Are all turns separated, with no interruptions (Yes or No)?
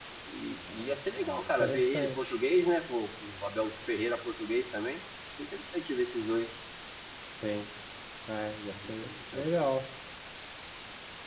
No